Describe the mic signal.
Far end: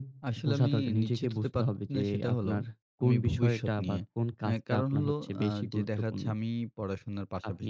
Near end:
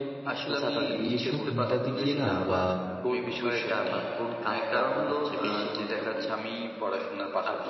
both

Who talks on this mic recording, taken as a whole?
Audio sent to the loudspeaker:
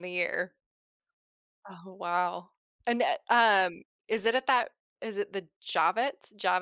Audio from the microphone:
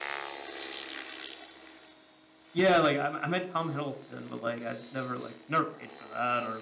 user only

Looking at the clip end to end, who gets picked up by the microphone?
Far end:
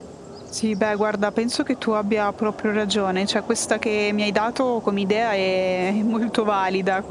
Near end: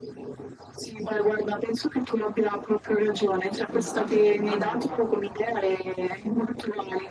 both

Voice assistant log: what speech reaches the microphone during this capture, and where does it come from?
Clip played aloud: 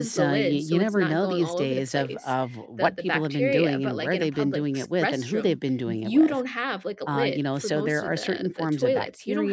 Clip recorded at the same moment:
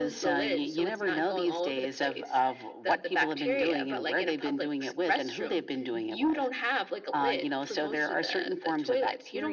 echo only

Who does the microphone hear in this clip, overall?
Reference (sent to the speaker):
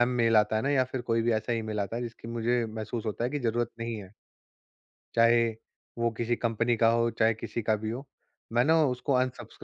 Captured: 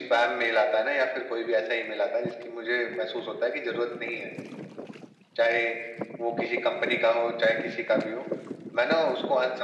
echo only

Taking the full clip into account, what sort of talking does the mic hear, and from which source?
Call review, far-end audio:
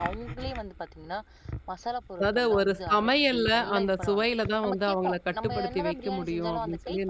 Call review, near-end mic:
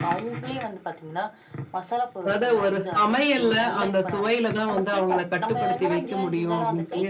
echo only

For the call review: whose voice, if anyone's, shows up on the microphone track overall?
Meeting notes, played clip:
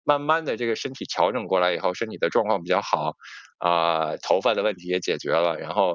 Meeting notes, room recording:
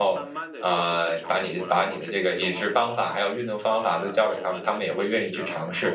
both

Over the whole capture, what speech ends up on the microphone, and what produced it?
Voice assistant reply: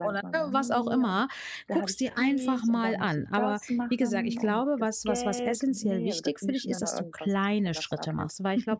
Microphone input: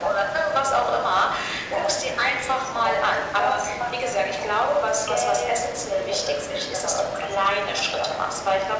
echo only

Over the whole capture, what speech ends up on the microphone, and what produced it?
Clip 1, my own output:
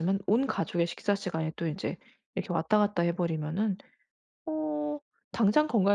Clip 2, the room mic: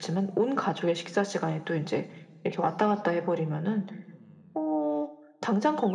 echo only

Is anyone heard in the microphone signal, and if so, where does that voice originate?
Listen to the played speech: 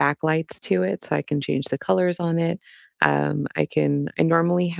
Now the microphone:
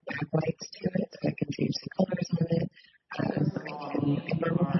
both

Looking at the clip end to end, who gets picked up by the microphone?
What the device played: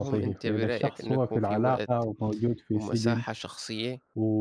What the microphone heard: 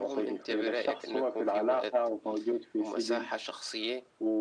echo only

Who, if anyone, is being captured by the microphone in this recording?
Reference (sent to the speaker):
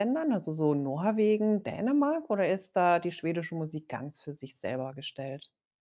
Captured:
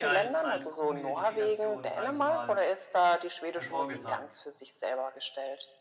both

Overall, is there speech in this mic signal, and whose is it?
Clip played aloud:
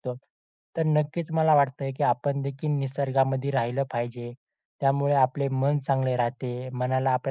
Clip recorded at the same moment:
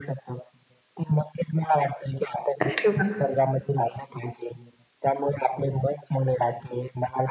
both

